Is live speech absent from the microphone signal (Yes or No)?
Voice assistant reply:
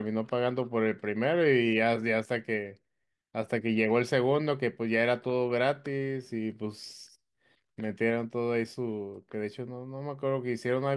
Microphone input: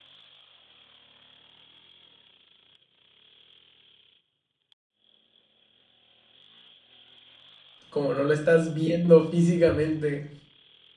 No